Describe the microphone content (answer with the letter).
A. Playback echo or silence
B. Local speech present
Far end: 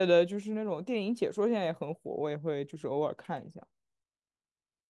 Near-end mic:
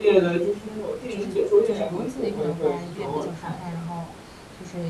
B